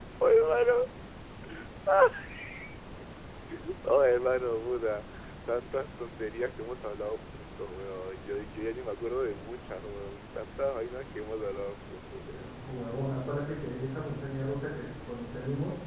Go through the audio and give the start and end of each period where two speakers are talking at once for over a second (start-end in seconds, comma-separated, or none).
none